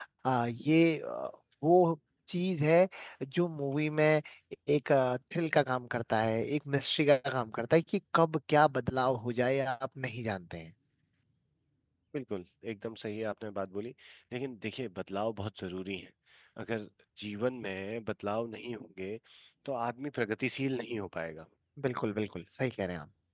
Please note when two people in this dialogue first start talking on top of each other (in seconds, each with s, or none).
none